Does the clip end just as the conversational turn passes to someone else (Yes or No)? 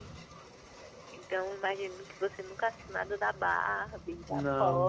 No